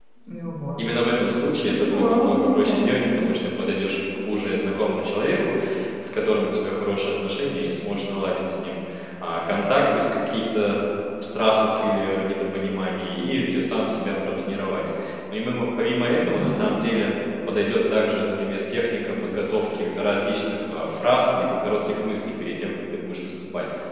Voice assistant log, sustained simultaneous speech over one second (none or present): present